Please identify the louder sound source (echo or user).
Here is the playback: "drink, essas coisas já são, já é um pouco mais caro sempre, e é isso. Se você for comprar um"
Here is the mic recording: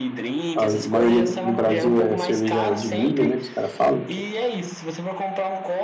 user